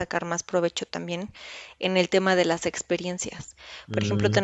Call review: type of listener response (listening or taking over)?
listening